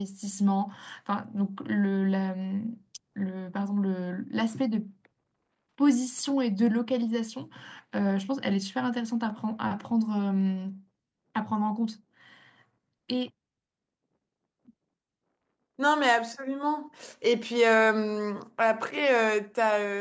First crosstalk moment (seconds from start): none

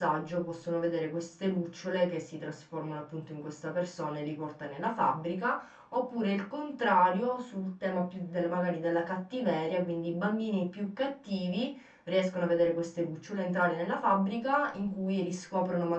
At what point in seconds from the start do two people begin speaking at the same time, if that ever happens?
none

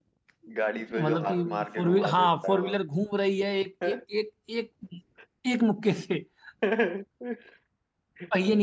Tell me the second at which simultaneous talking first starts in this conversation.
0.7 s

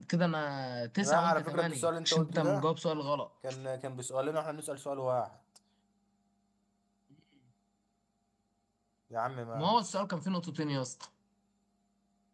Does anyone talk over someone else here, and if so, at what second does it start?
1.0 s

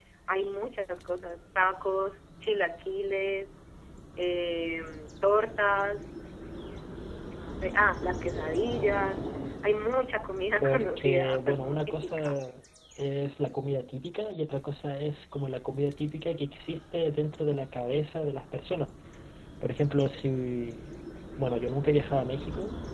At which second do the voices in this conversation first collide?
10.6 s

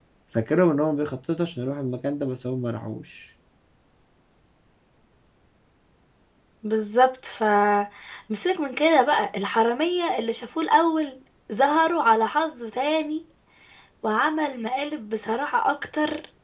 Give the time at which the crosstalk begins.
none

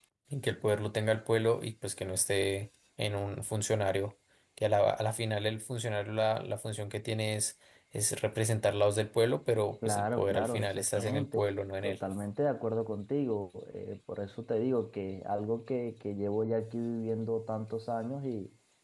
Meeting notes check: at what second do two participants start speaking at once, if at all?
9.8 s

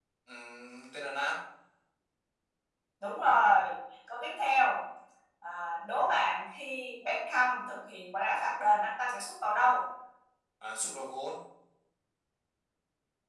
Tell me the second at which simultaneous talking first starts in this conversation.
none

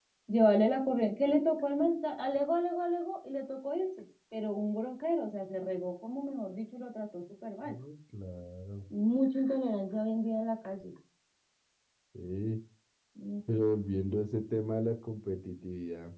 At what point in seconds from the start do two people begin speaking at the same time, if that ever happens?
none

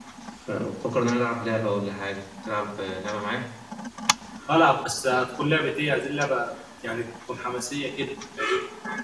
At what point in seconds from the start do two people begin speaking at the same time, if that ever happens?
none

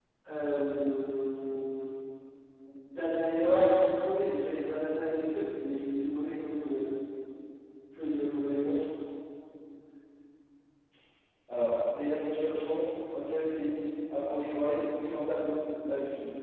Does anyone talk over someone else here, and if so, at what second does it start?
none

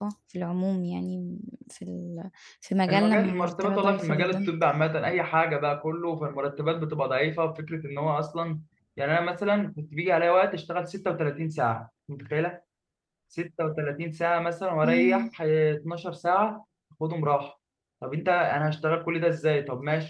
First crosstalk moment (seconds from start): 2.9 s

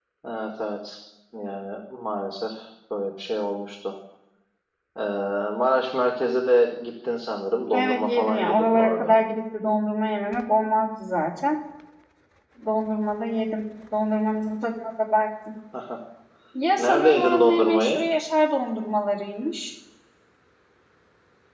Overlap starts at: 7.7 s

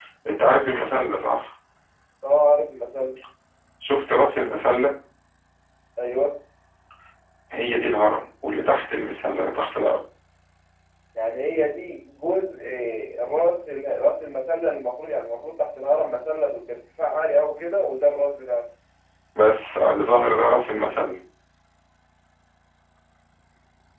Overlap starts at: none

